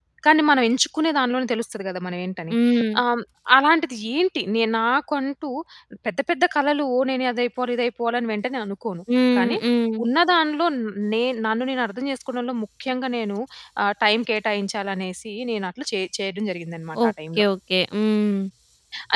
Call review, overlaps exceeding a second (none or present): none